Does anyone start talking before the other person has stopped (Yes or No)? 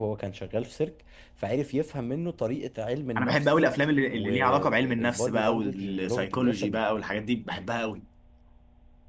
Yes